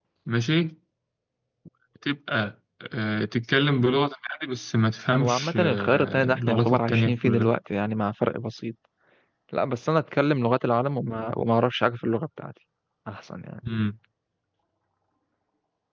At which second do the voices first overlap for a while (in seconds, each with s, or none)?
5.2 s